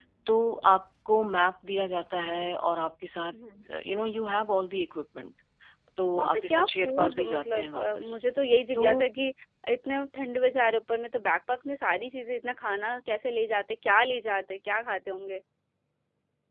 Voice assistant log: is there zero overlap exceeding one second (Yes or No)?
No